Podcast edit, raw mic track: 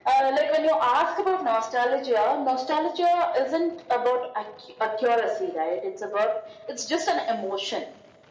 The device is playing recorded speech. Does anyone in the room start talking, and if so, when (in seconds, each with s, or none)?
none